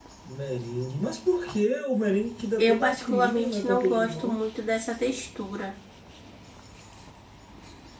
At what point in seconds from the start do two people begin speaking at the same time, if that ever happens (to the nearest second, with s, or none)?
3 s